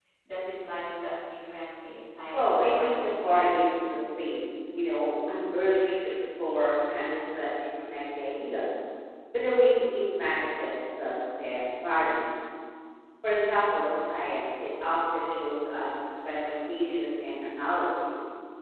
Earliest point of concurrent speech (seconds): 2.3 s

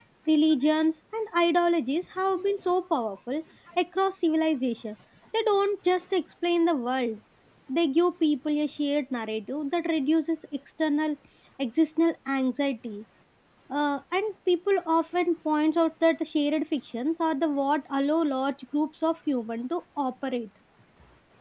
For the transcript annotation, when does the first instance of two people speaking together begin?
none

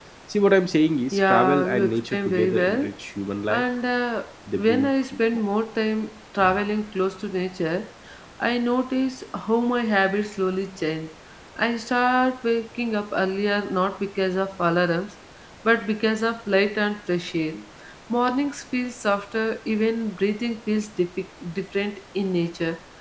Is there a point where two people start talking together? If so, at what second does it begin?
1.1 s

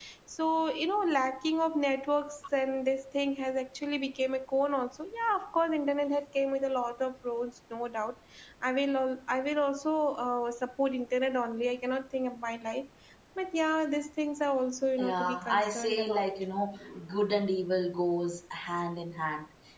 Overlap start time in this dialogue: 15.0 s

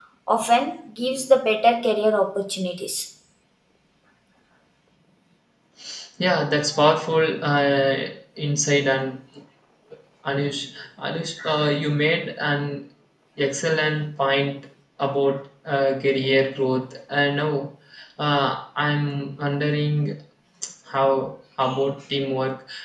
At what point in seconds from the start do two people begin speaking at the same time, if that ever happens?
none

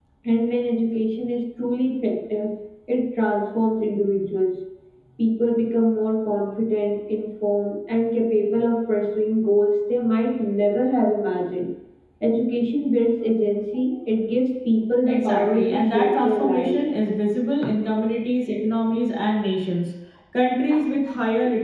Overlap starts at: 15.1 s

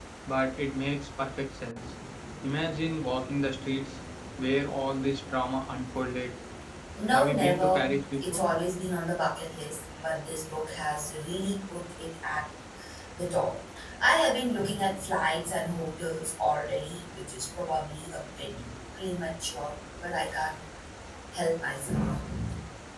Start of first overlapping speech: 7.1 s

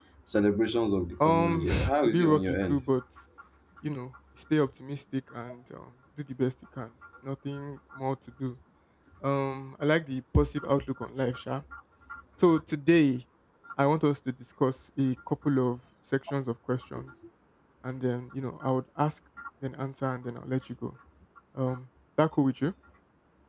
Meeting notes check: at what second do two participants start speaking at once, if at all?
1.2 s

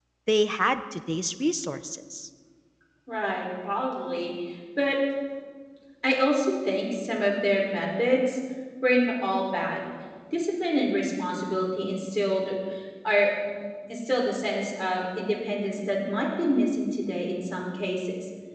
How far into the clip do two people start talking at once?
none

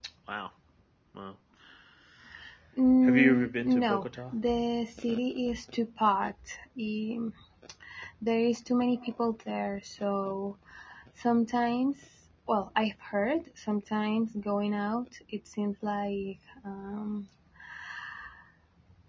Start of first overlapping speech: 3.0 s

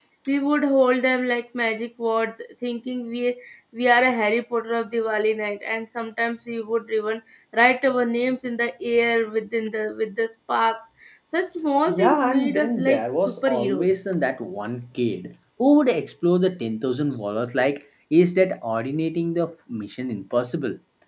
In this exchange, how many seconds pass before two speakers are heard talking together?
11.9 s

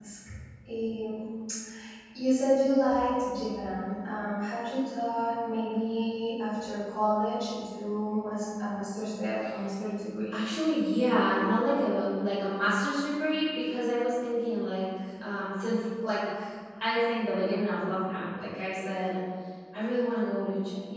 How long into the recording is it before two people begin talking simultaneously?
none

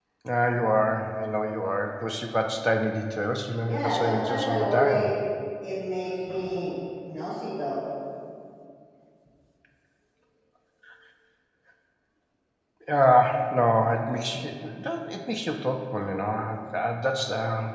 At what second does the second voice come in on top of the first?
3.7 s

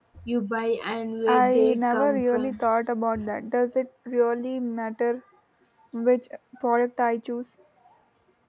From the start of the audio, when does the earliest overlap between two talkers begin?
1.3 s

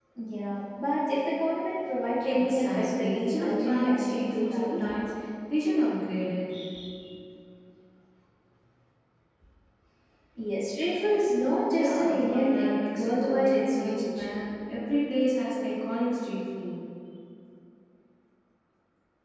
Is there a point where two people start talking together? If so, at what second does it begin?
2.2 s

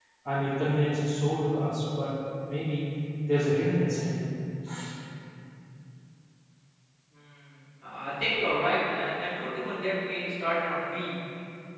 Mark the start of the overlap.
none

